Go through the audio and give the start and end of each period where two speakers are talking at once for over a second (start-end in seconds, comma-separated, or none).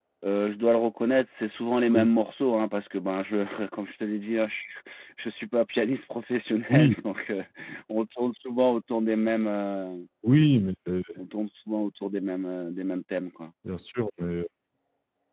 none